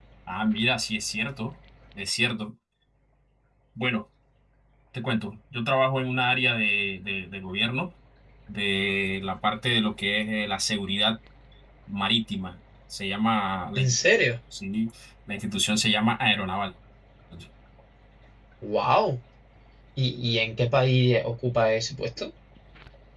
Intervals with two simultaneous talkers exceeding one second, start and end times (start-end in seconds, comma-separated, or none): none